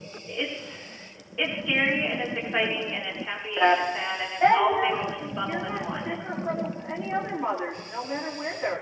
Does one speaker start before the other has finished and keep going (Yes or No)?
Yes